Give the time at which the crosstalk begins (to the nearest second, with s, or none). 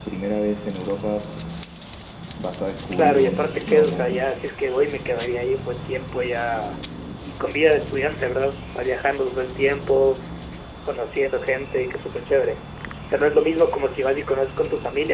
3 s